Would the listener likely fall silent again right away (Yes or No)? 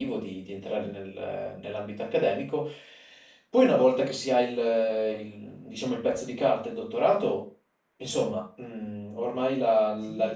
No